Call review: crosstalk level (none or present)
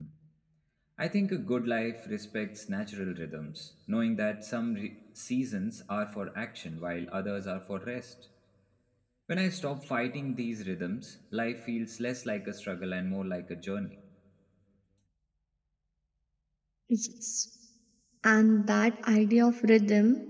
none